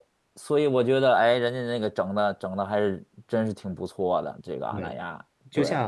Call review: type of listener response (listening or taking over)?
taking over